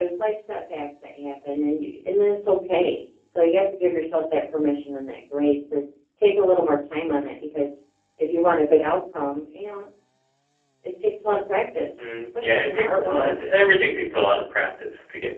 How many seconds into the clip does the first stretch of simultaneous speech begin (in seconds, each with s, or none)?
12.0 s